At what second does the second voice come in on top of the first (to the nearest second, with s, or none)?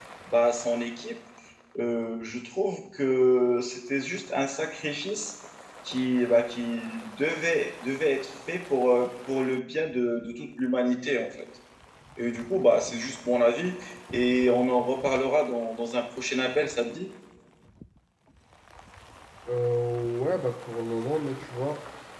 none